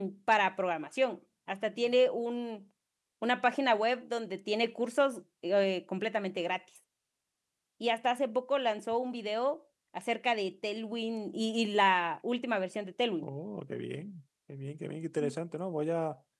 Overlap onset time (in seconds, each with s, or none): none